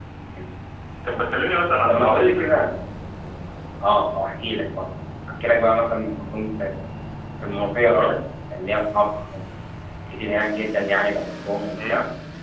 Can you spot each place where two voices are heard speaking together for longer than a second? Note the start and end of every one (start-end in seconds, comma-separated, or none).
none